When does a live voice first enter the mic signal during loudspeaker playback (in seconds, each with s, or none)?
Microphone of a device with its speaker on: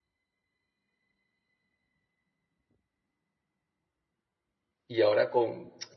4.9 s